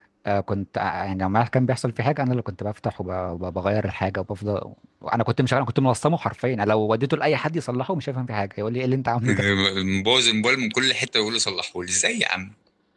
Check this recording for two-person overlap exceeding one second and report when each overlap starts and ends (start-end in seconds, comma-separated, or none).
none